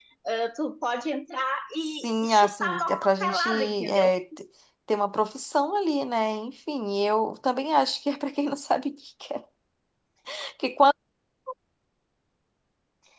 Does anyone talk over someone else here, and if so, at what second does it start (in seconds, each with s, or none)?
2.0 s